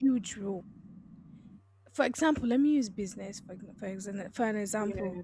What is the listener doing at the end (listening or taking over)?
listening